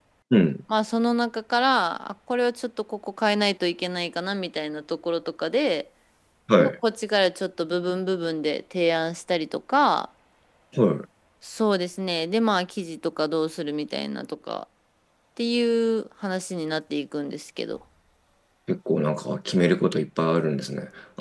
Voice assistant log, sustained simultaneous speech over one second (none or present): none